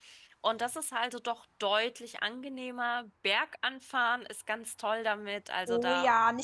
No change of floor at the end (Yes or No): No